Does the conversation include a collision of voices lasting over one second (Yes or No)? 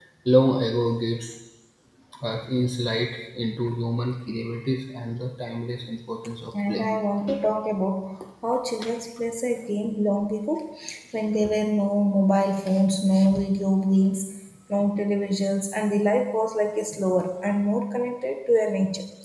No